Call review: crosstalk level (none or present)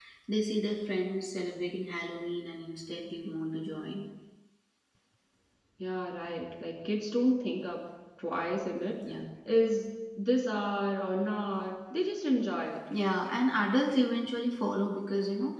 none